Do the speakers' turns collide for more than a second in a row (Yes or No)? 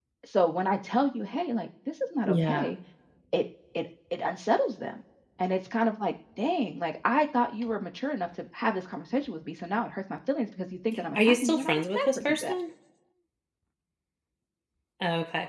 Yes